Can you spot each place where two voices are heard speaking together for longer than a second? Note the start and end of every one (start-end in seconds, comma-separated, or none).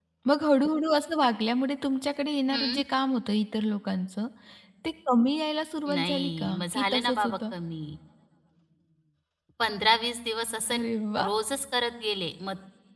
5.9-7.4